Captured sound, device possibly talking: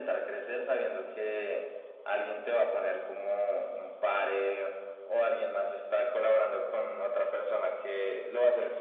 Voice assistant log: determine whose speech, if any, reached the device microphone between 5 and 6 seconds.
echo only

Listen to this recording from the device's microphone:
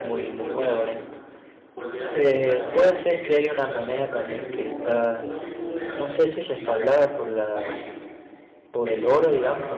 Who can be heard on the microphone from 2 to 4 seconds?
both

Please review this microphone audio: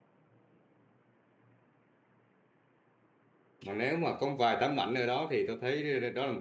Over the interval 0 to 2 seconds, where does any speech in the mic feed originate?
neither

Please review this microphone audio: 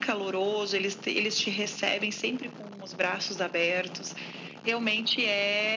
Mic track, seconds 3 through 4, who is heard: echo only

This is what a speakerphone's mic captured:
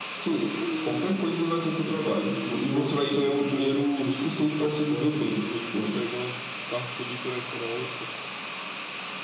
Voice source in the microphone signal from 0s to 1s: both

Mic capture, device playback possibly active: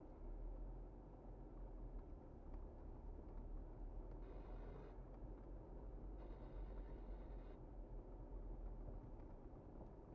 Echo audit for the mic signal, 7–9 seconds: neither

